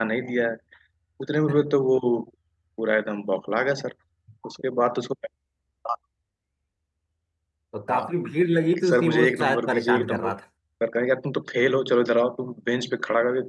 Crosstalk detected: Yes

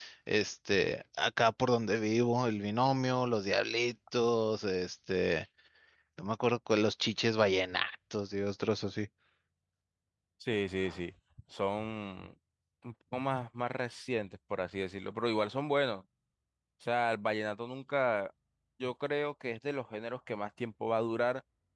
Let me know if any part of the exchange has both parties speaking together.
No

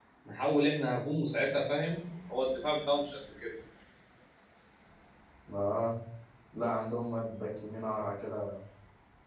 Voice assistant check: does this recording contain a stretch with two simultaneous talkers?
No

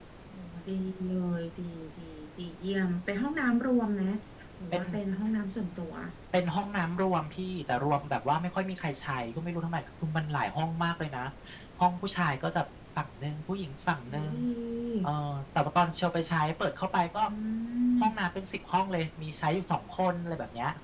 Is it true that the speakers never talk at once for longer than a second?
Yes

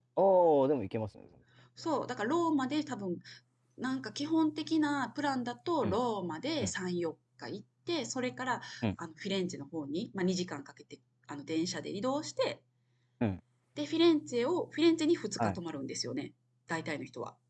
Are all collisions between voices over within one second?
Yes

